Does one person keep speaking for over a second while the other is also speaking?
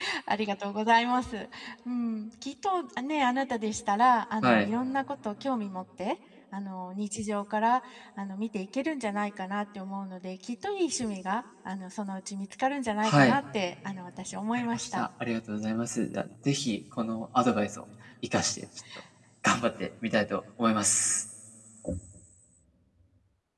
No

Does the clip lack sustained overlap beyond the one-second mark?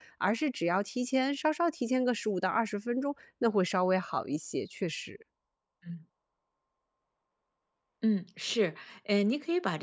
Yes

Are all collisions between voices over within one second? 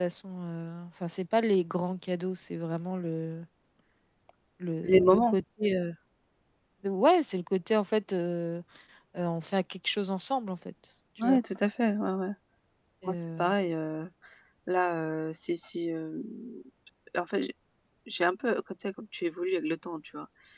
Yes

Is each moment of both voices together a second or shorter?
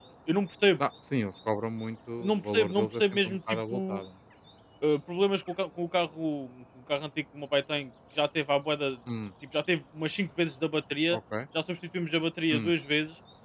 No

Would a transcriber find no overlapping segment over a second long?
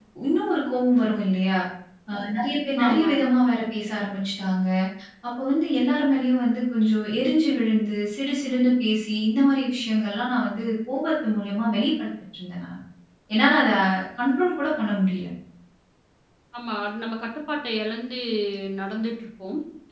Yes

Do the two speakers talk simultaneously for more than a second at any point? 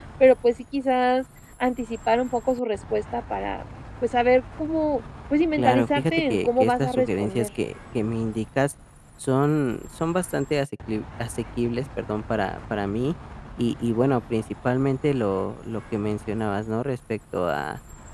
Yes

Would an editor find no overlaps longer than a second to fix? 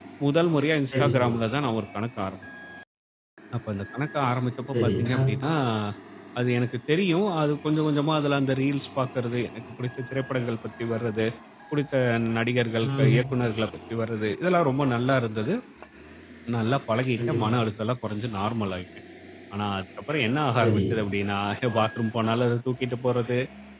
Yes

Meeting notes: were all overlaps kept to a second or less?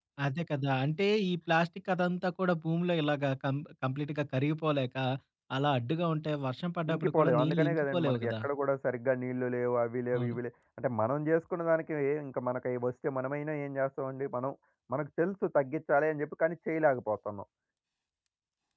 No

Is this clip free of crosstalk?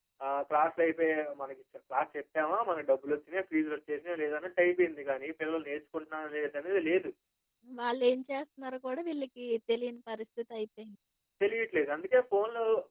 Yes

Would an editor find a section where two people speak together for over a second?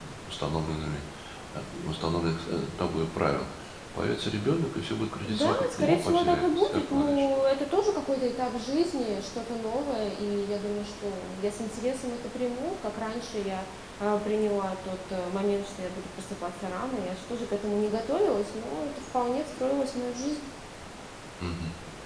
Yes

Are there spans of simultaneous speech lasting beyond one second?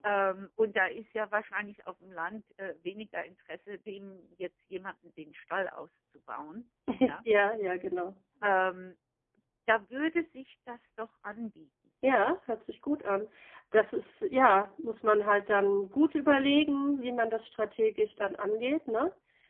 No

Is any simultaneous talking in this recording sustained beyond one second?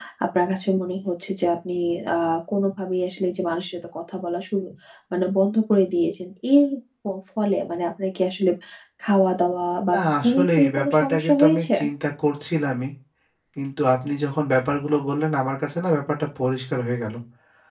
Yes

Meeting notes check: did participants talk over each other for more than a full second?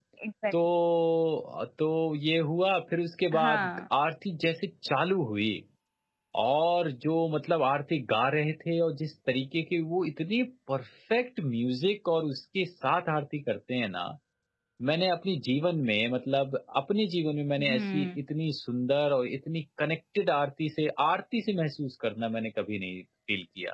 No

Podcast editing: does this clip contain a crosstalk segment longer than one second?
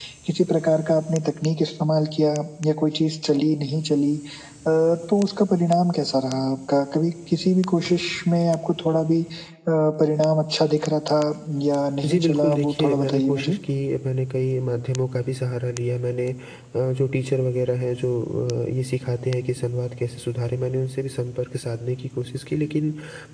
Yes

